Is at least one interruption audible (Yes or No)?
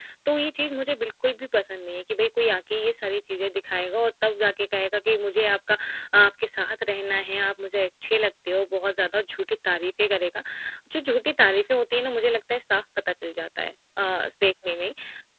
No